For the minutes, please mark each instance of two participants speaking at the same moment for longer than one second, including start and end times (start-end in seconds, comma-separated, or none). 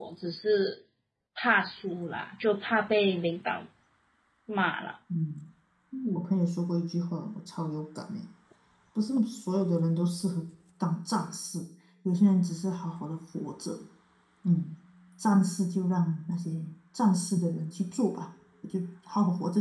none